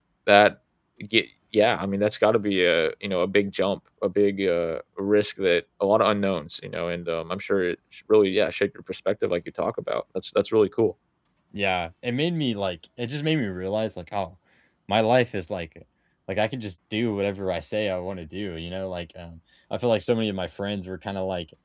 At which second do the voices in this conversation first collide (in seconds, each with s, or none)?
none